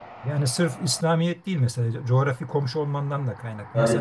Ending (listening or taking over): listening